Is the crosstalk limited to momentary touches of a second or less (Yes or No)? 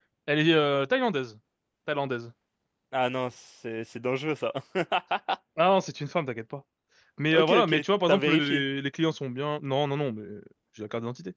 No